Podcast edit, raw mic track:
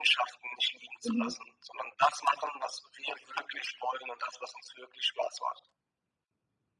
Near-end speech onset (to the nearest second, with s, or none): 1 s